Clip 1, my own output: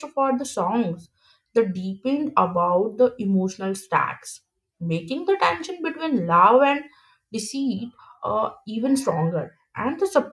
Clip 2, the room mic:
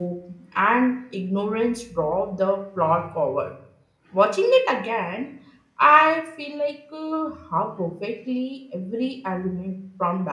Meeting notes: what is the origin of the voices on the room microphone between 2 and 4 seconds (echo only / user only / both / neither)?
user only